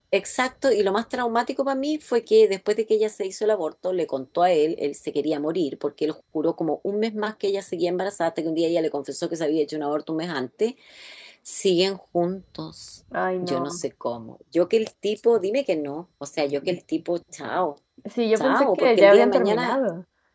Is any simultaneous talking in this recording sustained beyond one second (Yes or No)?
Yes